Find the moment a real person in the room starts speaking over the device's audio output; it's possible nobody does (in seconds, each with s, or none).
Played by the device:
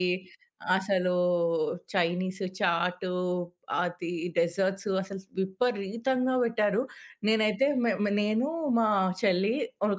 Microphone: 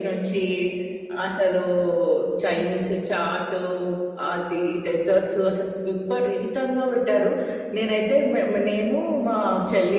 2.5 s